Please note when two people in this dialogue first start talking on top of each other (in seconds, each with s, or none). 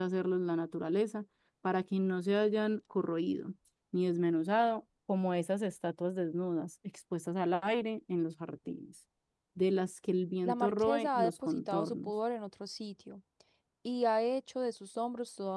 10.4 s